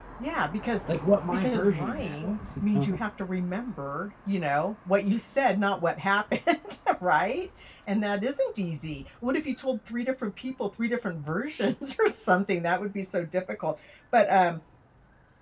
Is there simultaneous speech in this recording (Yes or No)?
Yes